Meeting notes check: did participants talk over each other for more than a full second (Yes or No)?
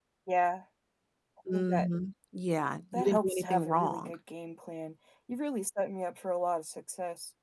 Yes